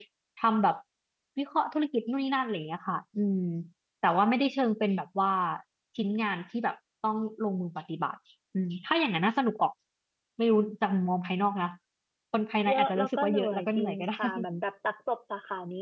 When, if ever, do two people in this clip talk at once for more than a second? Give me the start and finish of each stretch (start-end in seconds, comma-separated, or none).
12.7-14.2